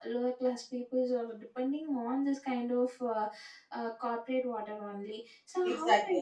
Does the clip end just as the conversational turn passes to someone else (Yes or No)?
Yes